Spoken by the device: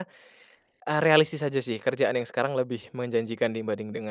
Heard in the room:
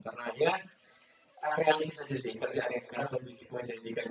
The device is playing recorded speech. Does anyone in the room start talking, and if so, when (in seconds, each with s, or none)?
none